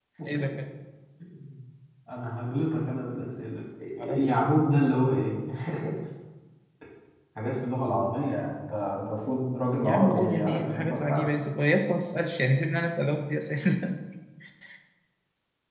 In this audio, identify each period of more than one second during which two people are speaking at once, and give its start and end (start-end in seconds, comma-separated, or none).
9.8-11.3